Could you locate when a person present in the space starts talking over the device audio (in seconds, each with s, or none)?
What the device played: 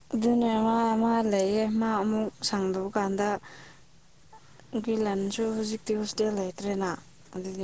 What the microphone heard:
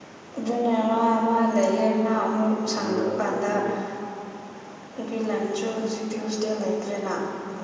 2.8 s